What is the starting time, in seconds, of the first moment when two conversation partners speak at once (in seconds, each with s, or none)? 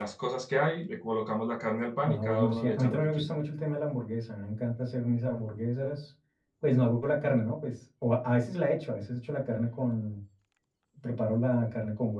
2.0 s